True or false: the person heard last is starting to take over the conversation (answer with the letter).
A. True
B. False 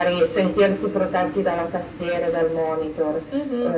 A